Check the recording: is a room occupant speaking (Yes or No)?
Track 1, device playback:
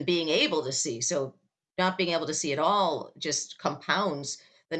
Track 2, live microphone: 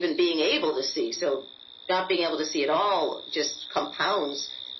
No